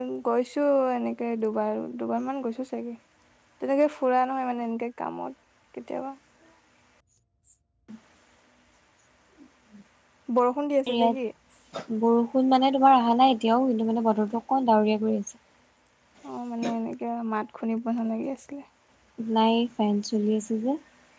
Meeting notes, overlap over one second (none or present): none